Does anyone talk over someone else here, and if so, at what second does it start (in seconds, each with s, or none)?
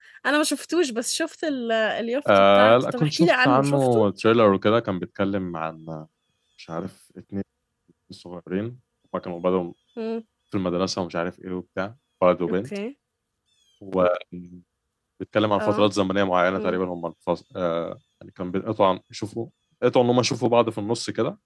2.4 s